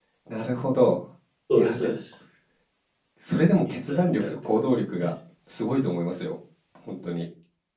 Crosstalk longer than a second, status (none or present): present